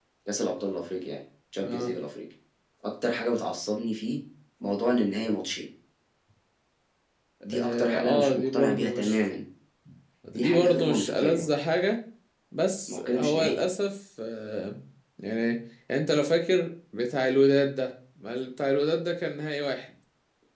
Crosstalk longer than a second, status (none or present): present